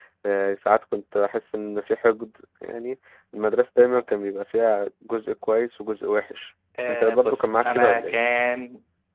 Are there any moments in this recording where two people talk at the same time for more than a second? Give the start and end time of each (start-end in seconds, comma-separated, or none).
6.9-8.1